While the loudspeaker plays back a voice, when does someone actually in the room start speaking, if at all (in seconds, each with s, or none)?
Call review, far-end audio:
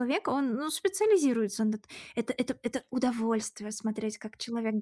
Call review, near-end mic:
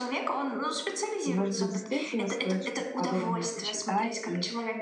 1.2 s